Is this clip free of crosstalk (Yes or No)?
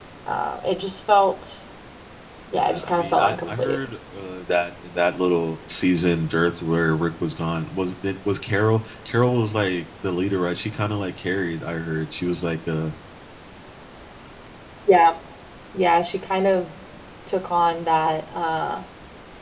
No